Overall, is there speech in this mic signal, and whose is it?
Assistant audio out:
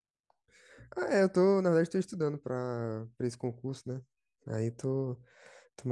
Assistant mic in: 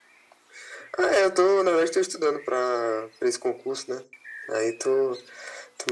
echo only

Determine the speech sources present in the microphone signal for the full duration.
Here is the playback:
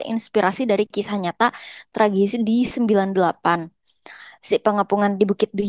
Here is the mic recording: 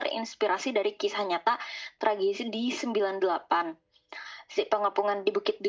echo only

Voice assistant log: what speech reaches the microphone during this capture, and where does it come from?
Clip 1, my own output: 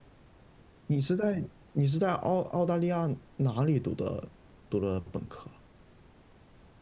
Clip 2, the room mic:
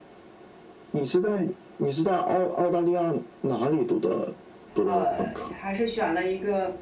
both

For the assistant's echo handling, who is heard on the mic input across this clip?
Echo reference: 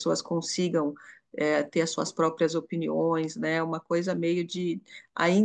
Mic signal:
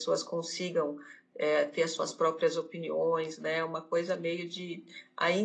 echo only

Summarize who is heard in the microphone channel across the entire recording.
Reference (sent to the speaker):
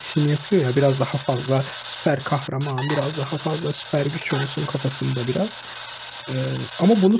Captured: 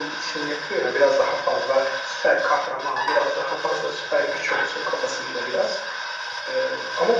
echo only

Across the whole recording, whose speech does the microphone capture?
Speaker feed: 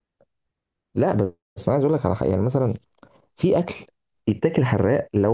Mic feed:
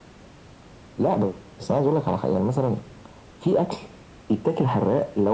echo only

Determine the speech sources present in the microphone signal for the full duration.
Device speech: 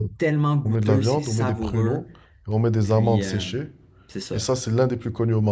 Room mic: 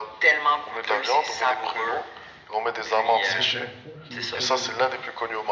both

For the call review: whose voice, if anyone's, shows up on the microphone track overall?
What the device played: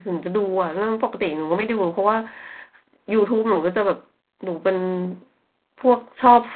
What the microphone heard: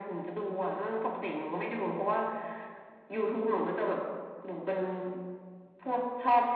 echo only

